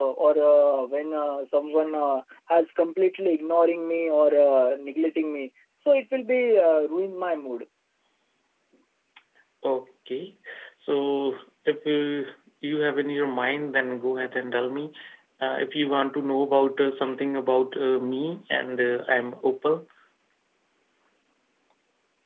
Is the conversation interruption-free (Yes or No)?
Yes